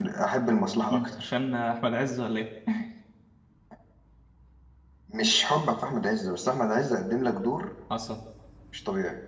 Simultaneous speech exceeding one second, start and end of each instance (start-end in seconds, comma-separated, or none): none